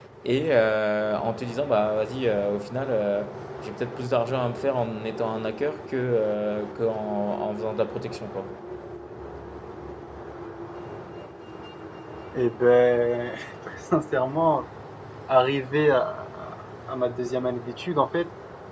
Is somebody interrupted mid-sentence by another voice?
No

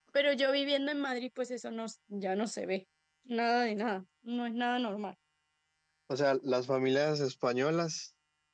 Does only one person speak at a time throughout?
Yes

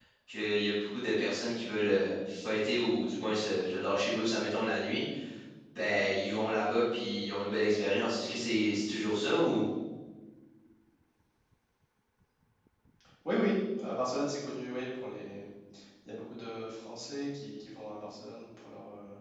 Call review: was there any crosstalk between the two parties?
No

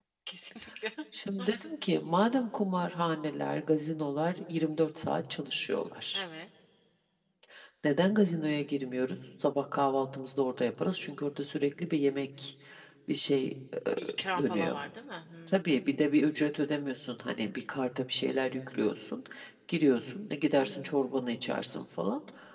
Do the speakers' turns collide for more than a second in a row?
No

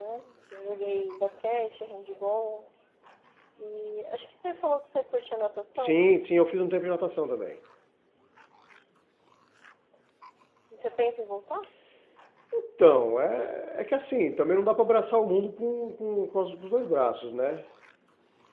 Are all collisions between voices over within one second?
Yes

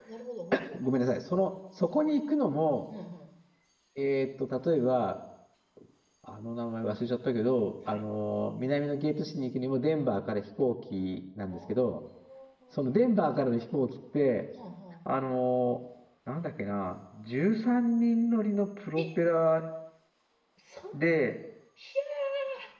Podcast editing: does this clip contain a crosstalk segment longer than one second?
No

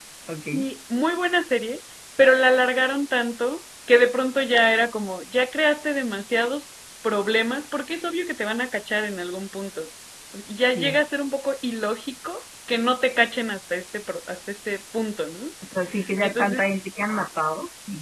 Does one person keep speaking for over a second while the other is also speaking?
No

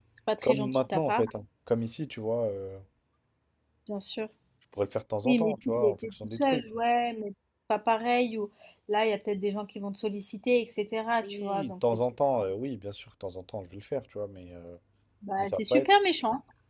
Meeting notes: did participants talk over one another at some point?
Yes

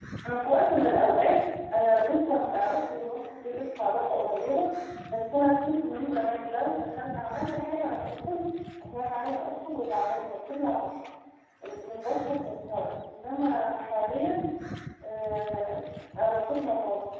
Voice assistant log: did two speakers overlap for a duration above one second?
No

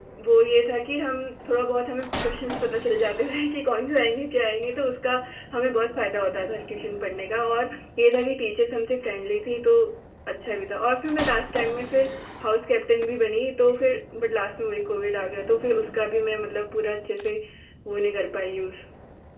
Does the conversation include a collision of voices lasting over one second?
No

